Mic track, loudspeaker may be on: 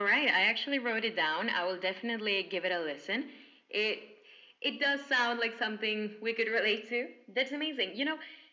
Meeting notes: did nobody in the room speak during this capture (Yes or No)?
Yes